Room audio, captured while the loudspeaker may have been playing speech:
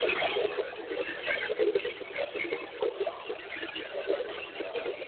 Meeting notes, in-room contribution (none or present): present